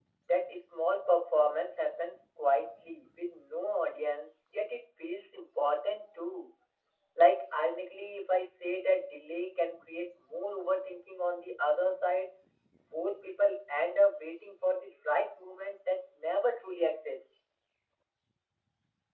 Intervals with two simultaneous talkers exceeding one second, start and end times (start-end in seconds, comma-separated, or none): none